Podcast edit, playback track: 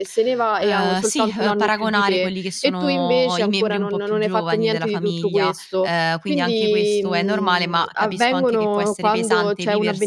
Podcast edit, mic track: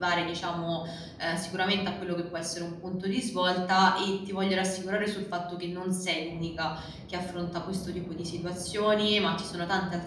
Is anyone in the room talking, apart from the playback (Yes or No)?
Yes